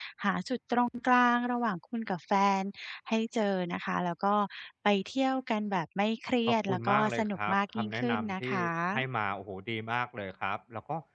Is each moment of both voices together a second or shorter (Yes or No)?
No